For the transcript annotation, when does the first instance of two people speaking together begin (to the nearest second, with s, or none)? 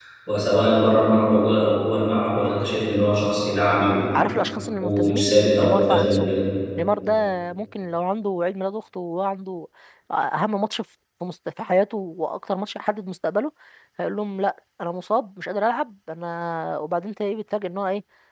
5 s